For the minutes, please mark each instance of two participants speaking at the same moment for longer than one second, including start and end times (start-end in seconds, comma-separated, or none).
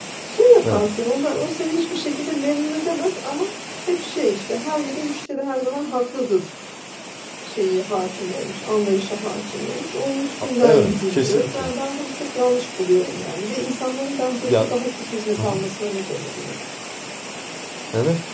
10.4-11.7